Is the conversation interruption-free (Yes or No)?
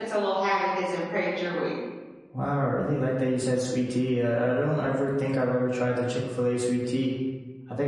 Yes